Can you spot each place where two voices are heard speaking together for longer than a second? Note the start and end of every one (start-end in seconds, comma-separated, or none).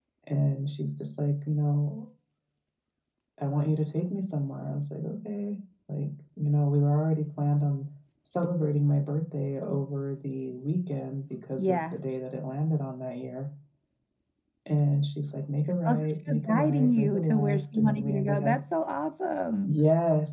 15.8-18.6